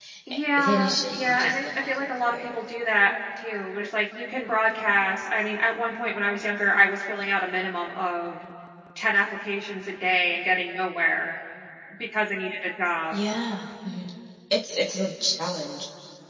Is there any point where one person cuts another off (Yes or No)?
Yes